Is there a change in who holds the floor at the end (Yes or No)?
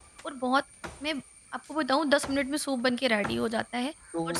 Yes